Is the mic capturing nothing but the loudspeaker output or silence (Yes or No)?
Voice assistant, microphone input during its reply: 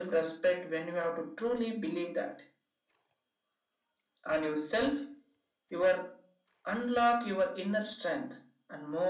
Yes